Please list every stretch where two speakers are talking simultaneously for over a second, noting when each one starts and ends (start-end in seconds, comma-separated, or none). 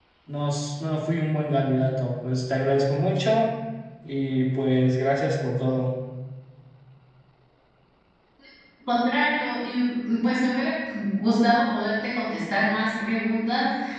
none